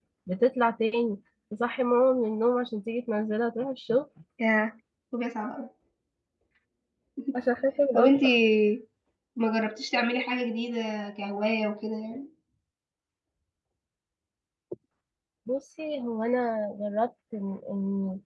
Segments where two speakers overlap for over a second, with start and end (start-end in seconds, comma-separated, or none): none